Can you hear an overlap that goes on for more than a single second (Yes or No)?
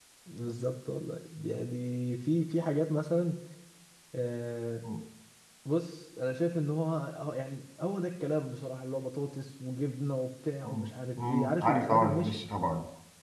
Yes